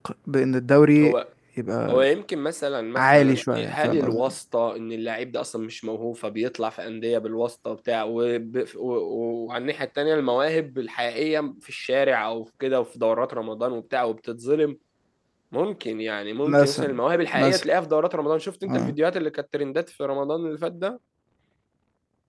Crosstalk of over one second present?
Yes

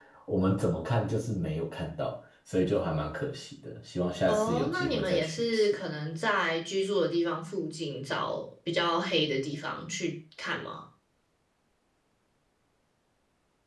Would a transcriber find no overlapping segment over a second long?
No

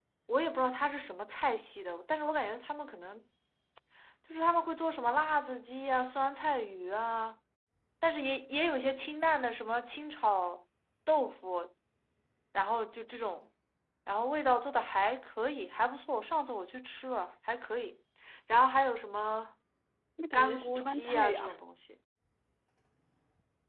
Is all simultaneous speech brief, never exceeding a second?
No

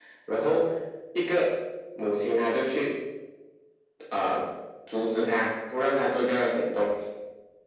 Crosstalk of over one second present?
No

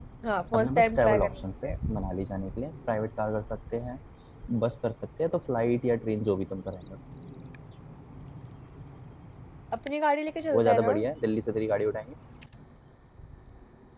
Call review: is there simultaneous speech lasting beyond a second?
Yes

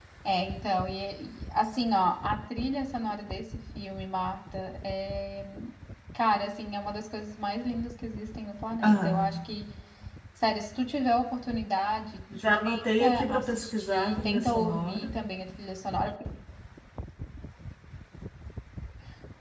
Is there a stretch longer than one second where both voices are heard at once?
Yes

